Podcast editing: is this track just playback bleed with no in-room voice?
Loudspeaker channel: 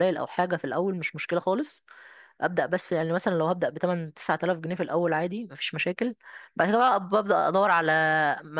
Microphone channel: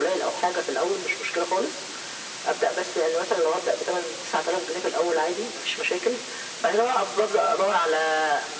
Yes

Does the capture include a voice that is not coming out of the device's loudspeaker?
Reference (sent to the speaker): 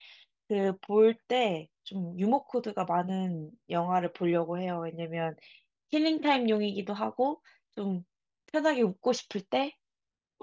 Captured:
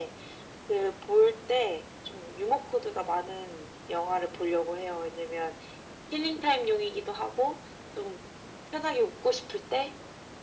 No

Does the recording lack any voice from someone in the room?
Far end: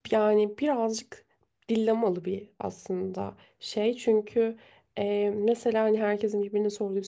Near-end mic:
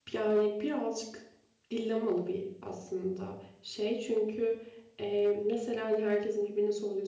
Yes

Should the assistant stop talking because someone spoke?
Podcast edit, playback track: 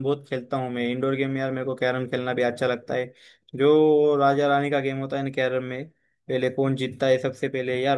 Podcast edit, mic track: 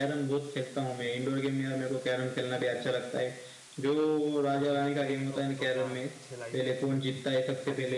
Yes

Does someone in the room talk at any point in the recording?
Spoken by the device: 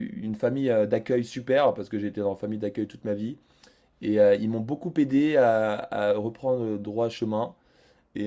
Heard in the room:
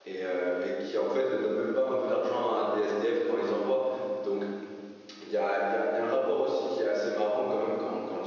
Yes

